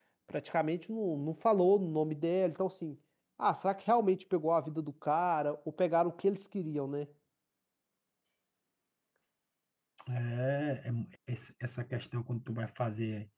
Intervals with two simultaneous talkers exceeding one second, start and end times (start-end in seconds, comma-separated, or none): none